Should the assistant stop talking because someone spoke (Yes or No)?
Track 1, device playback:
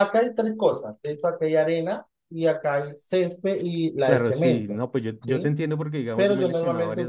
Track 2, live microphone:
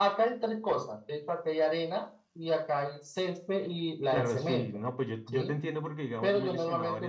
No